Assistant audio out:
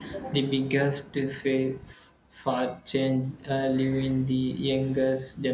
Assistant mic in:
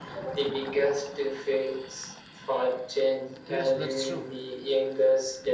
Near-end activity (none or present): present